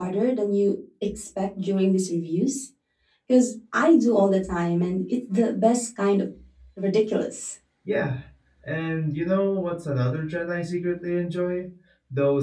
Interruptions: none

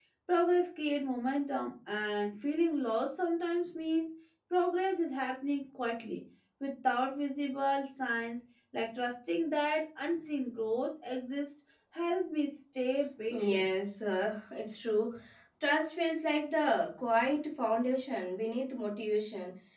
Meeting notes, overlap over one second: none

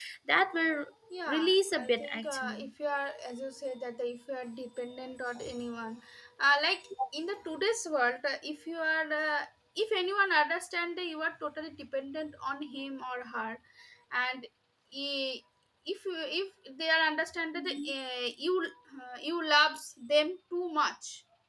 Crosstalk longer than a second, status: present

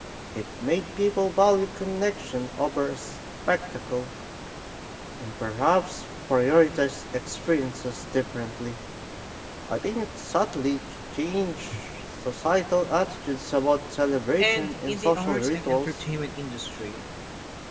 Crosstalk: present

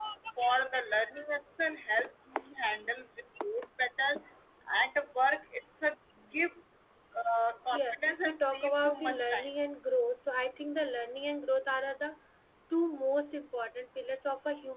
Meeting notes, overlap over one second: present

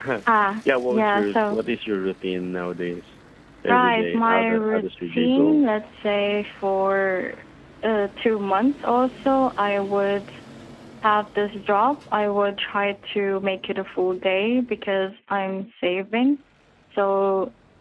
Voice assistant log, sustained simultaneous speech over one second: present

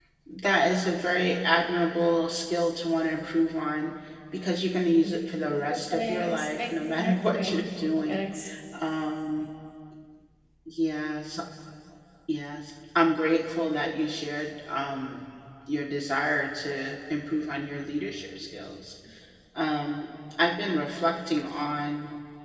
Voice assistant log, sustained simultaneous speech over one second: present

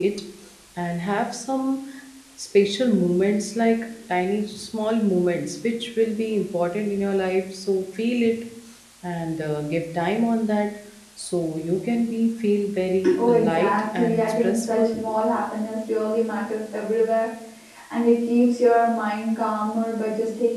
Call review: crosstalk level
present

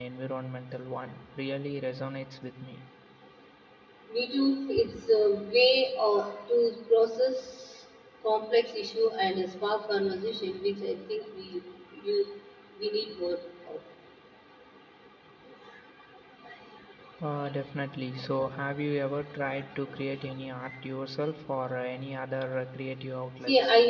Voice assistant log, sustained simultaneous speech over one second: none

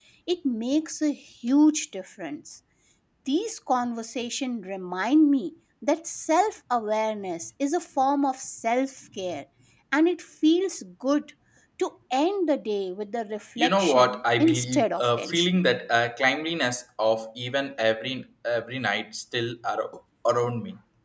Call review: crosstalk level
present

